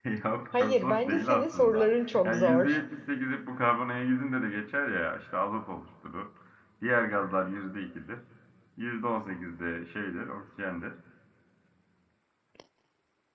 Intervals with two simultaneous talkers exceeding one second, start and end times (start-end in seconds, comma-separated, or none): 0.6-2.8